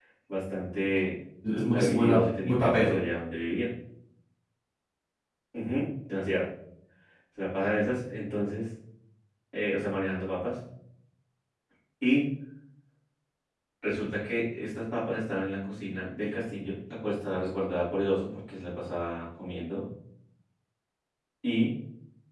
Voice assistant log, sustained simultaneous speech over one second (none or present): present